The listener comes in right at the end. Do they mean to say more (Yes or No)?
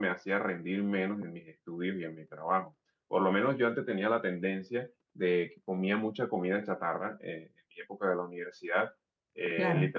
No